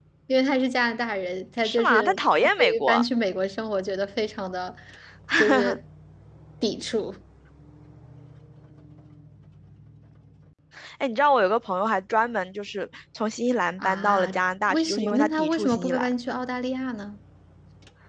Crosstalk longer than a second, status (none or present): present